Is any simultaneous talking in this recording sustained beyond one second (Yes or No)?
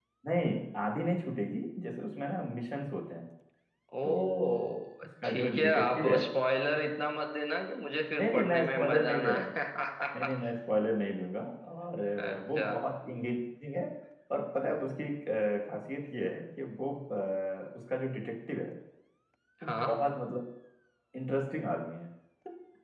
Yes